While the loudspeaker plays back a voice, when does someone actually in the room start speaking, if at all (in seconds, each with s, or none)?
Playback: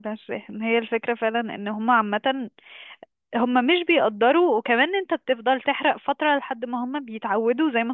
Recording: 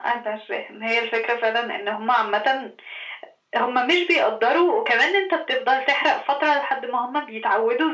none